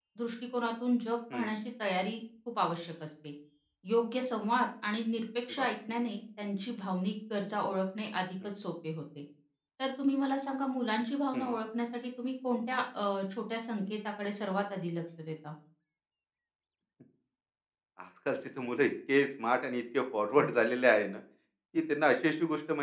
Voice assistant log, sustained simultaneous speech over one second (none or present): none